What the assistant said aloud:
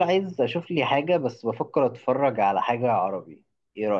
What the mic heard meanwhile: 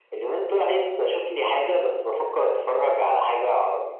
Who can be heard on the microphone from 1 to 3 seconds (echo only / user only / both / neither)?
echo only